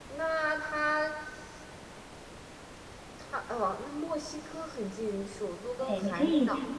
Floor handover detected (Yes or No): Yes